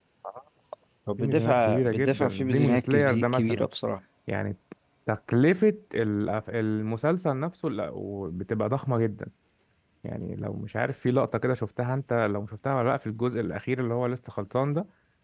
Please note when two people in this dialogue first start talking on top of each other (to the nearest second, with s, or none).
1 s